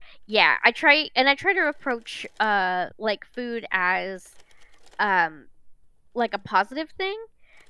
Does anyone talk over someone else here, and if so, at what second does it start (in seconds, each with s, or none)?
none